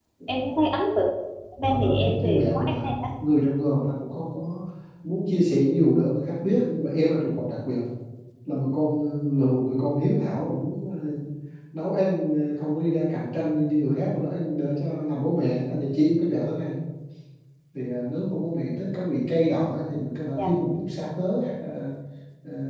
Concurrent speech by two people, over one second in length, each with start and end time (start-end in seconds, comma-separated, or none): 1.7-3.1